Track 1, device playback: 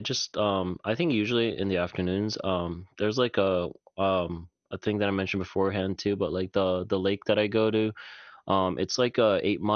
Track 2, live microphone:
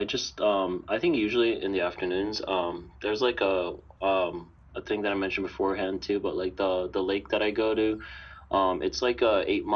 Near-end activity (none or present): none